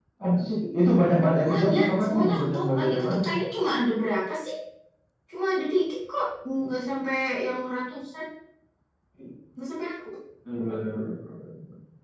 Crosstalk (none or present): present